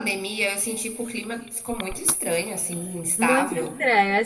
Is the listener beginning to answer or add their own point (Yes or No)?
Yes